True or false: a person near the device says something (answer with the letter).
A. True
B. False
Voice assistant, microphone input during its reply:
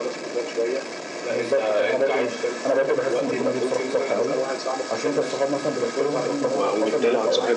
A